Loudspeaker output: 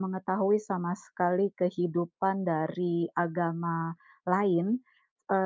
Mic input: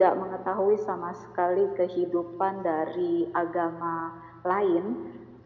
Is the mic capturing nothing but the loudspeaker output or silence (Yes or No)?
Yes